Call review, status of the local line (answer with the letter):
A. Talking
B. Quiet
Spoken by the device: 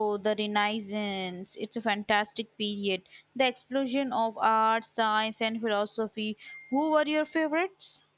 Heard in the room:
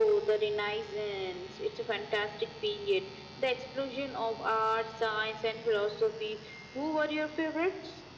B